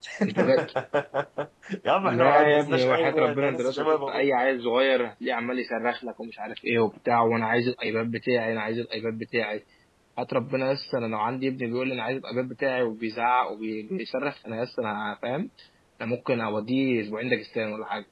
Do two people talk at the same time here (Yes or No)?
Yes